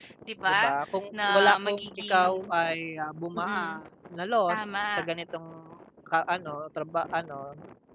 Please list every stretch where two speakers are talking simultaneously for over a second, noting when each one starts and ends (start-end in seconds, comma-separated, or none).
1.1-2.5